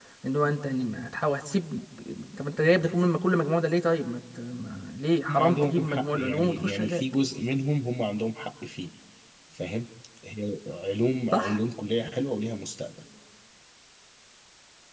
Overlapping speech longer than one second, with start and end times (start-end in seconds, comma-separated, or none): 5.3-7.0